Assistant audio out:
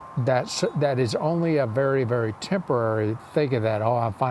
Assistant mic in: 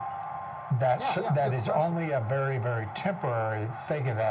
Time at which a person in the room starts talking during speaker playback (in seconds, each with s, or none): 0.9 s